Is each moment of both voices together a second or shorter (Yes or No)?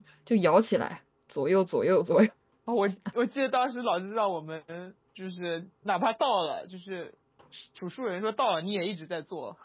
Yes